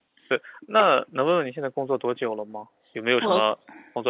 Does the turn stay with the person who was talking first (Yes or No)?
Yes